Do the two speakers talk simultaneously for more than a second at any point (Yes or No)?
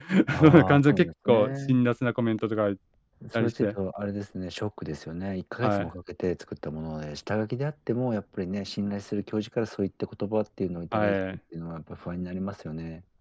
Yes